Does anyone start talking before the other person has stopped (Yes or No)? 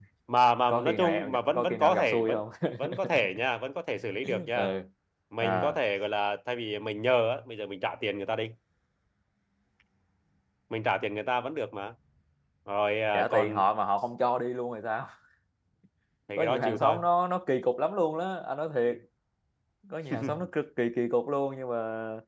Yes